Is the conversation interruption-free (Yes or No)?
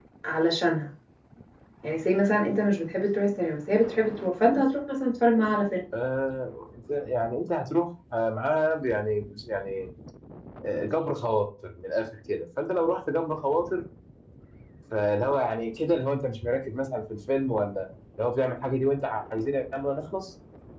Yes